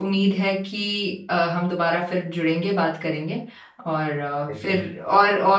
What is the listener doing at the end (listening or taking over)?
listening